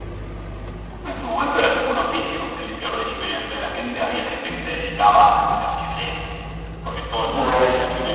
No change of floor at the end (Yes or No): Yes